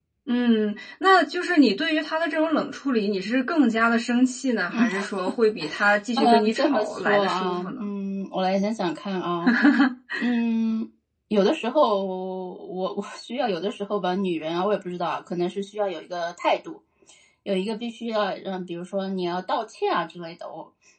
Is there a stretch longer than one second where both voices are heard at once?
Yes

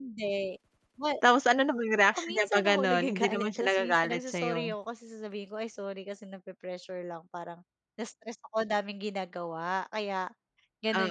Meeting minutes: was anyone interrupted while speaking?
Yes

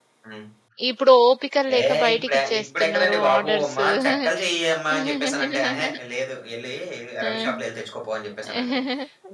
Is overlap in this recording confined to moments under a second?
No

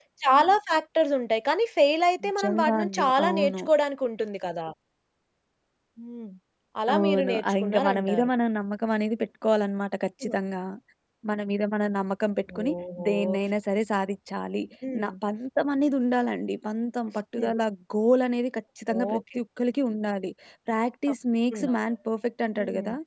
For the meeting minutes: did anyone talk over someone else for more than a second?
Yes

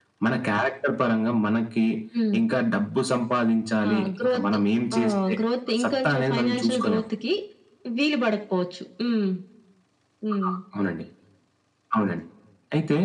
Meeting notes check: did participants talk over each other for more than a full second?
Yes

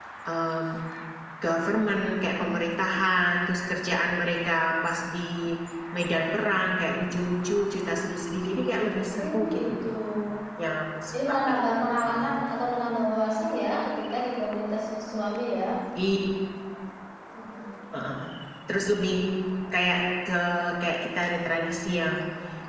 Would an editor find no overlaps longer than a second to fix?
No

